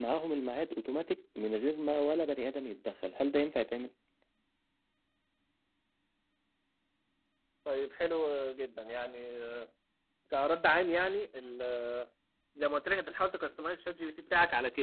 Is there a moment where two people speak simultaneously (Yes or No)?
No